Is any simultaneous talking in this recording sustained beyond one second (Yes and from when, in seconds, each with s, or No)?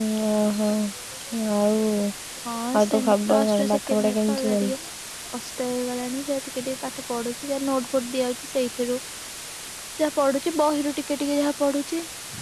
Yes, from 2.8 s